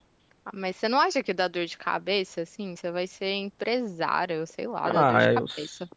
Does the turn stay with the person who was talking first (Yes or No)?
No